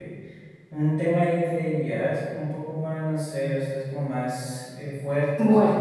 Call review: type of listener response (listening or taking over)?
listening